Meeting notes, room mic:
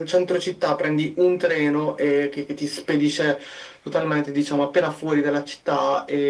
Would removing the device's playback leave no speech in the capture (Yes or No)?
Yes